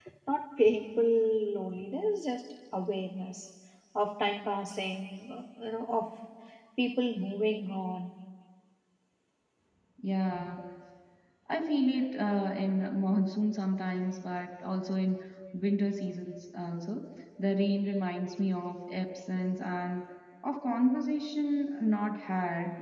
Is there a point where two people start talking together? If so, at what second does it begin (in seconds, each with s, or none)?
none